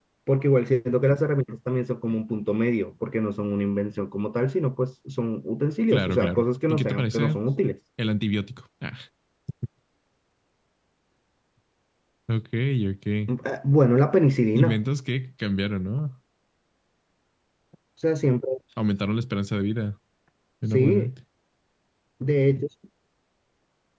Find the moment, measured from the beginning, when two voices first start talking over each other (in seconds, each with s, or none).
5.9 s